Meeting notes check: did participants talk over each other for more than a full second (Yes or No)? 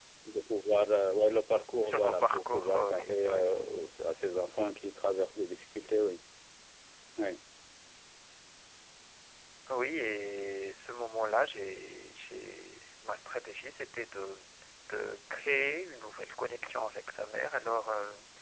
Yes